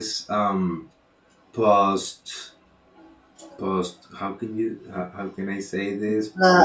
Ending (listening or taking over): taking over